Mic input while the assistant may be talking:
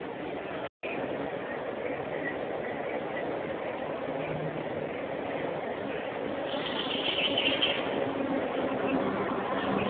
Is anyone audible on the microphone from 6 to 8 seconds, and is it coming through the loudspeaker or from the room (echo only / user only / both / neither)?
neither